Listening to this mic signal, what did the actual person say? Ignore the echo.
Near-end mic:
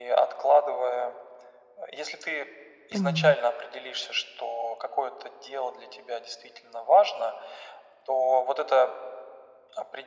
Поняла.

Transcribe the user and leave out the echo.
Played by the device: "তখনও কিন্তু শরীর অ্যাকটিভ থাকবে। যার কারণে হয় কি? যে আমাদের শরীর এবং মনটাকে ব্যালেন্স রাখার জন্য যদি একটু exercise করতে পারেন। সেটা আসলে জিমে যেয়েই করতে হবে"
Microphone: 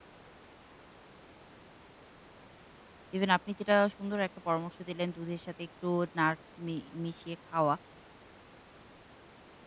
ইভেন আপনি যেটা সুন্দর একটা পরামর্শ দিলেন দুধের সাথে একটু নাটস মি মিশিয়ে খাওয়া।

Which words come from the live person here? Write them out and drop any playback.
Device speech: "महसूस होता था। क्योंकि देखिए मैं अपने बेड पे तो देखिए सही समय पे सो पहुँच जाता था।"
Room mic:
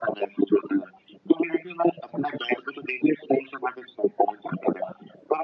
none

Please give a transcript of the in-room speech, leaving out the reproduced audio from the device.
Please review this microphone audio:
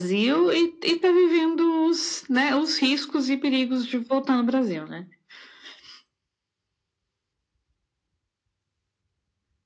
none

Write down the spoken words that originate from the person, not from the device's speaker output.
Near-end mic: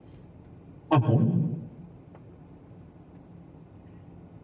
হু, হু।

